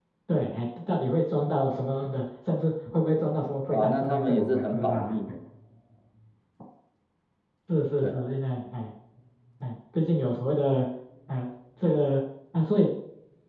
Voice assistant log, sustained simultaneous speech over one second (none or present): present